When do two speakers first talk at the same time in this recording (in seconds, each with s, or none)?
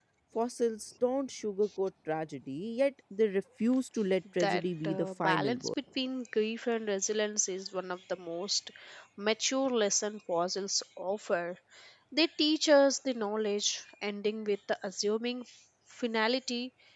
4.4 s